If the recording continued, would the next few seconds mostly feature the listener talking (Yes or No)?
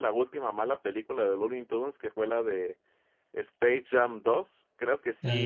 No